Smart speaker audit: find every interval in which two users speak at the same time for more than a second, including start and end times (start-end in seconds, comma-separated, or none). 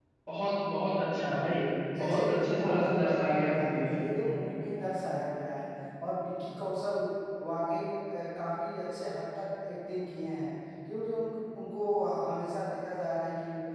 2.0-3.9